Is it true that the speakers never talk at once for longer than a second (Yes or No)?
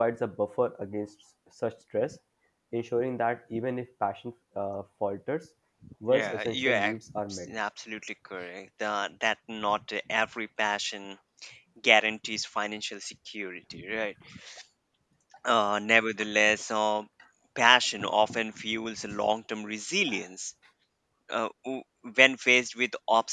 No